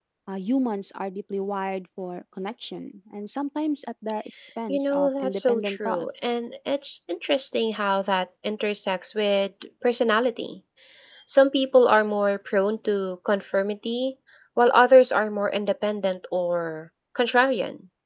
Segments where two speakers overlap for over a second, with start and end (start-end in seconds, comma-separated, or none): 4.7-6.1